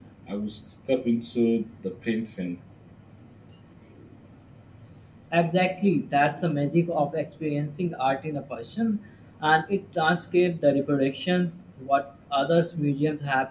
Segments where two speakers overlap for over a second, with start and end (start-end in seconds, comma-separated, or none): none